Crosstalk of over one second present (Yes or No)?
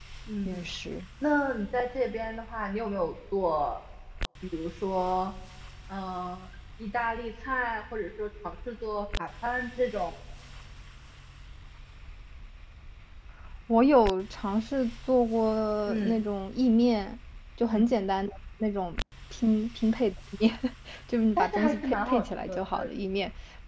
Yes